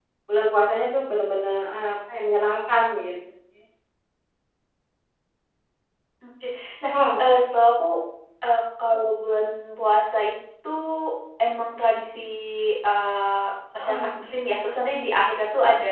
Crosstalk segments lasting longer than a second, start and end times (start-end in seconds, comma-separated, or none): none